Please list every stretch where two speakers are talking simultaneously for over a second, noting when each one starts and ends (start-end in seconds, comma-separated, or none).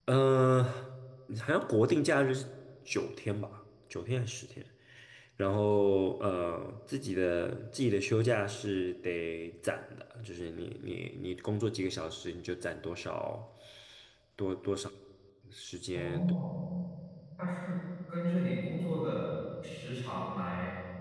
none